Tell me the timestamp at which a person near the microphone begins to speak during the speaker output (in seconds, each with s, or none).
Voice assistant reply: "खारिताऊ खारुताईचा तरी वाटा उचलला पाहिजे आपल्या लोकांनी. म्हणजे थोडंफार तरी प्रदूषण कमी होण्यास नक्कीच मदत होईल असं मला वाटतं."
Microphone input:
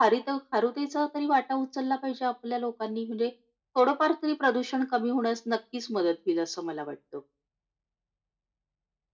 none